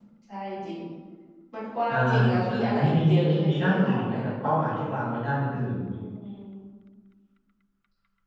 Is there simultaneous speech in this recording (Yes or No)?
Yes